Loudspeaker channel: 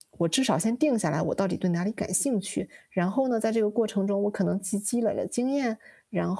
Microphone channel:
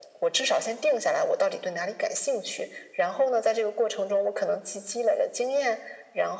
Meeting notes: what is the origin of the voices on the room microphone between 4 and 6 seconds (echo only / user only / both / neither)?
echo only